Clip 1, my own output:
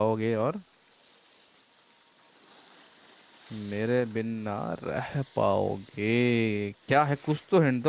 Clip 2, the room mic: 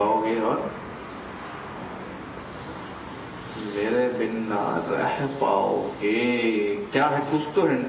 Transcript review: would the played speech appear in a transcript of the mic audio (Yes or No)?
Yes